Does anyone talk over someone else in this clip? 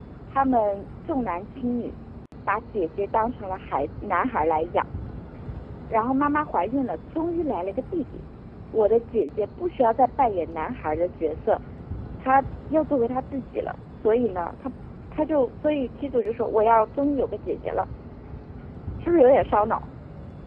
No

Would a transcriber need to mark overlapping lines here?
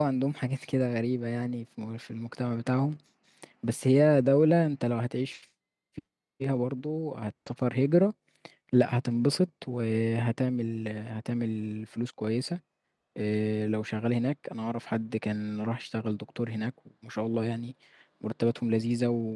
No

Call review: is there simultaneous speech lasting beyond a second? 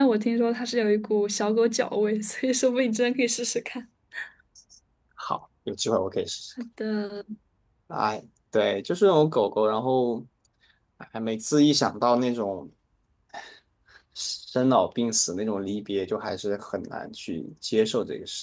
No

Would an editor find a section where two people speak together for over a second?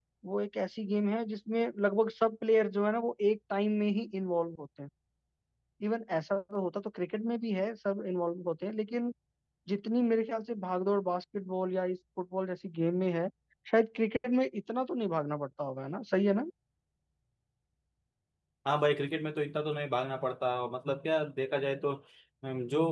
No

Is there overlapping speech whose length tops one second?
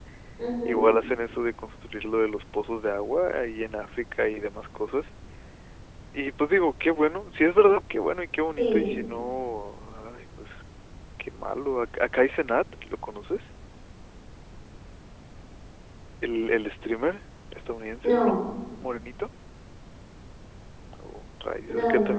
No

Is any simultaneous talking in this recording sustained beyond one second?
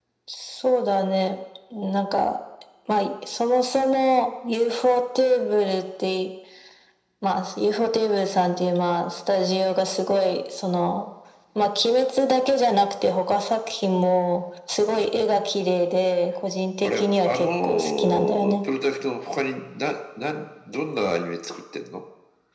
Yes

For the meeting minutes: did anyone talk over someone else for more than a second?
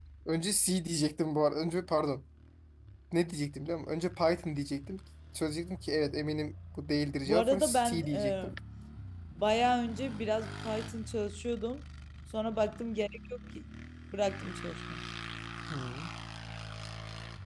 Yes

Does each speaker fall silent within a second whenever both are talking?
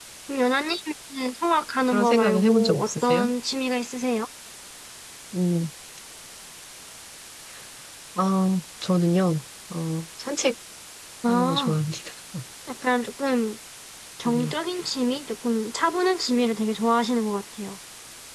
No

